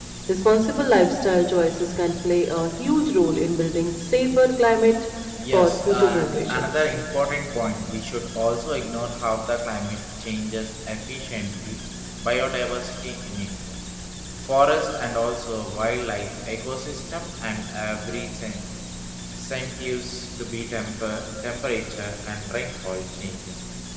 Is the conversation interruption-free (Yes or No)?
No